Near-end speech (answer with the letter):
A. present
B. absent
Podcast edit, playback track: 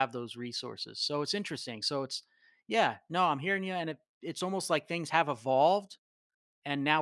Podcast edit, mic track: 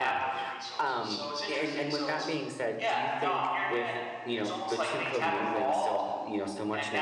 A